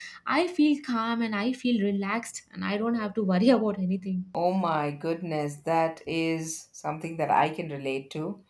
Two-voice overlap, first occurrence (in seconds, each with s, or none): none